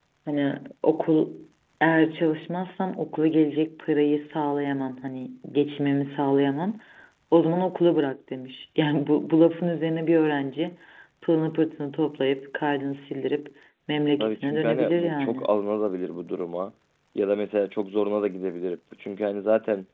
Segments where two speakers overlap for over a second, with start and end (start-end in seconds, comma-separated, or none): 14.2-15.5